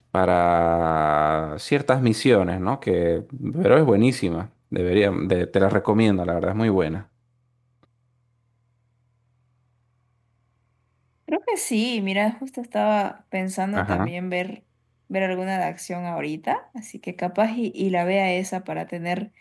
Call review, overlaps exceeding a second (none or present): none